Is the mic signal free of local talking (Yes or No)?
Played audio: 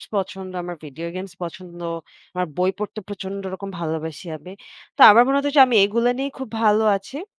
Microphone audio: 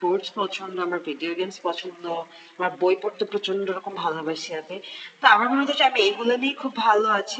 Yes